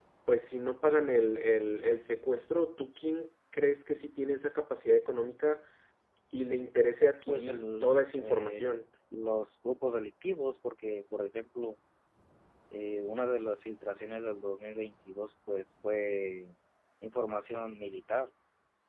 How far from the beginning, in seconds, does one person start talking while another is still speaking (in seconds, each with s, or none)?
7.3 s